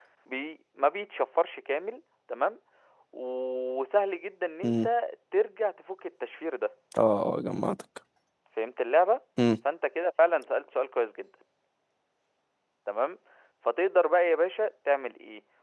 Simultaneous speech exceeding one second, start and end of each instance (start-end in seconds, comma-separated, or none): none